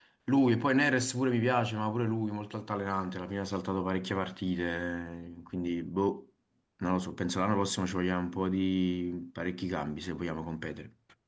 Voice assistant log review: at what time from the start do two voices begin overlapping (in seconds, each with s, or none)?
none